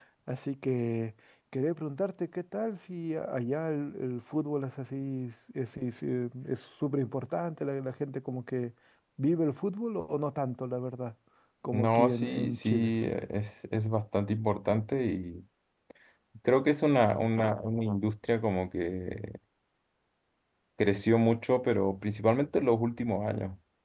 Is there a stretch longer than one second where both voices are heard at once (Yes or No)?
Yes